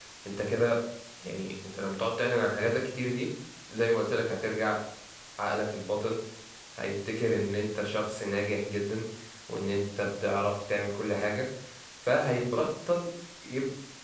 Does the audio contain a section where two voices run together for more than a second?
No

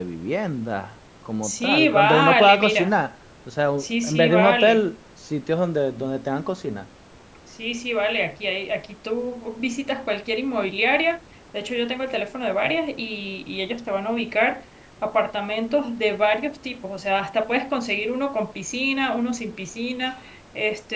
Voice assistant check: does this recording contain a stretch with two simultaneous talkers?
Yes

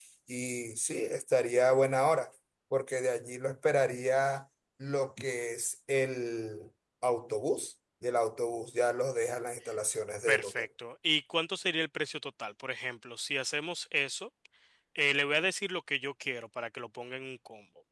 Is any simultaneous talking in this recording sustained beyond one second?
No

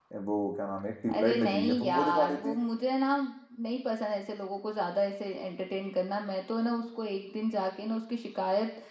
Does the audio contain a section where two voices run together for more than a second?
Yes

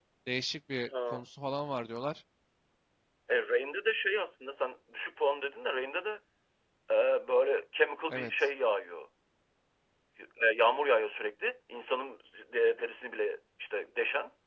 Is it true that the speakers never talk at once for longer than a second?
Yes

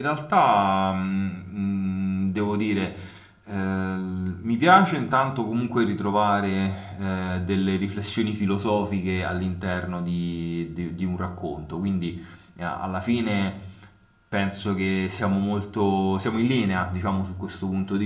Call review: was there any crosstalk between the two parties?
No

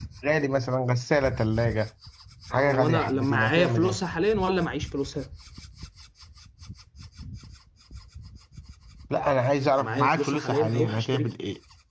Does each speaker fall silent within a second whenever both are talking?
No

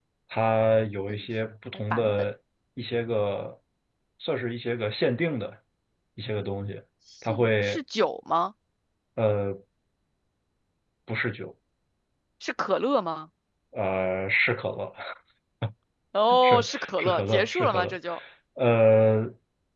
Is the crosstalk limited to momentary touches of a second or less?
No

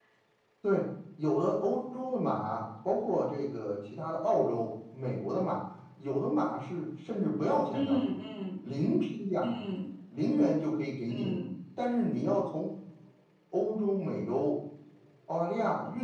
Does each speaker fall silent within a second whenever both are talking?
Yes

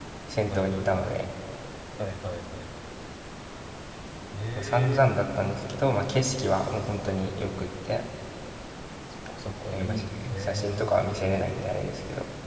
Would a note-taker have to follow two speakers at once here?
Yes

